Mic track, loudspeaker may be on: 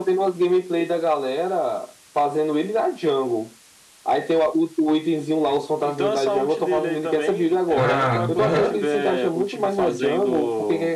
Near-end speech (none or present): present